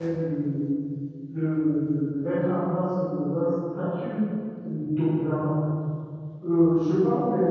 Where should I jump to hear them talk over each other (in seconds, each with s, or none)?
none